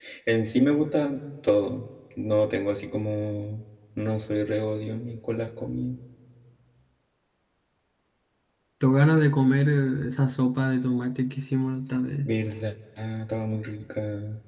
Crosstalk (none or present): none